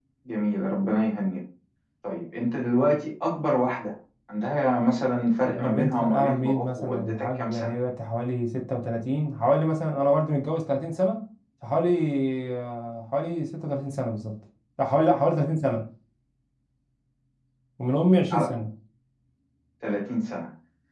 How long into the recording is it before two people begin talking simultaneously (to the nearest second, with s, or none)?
5 s